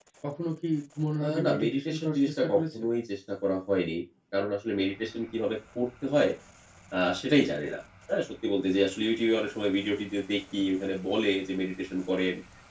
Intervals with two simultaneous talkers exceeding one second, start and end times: 1.2-2.9

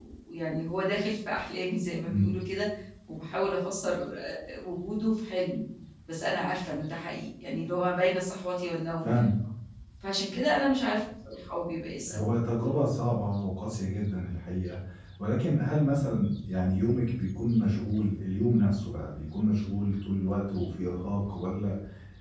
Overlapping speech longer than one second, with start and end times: none

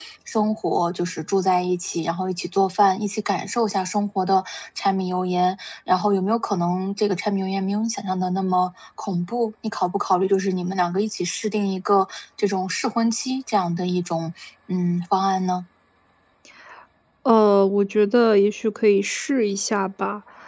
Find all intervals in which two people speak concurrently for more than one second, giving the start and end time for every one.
none

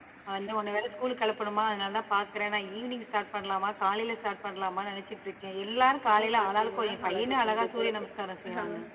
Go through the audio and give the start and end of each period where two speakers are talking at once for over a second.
6.1-7.9

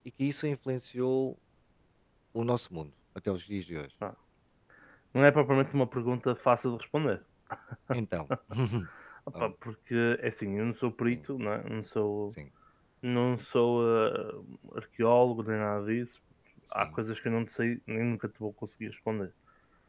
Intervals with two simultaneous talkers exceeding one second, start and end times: none

